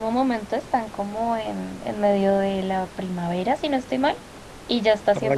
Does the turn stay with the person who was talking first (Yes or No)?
Yes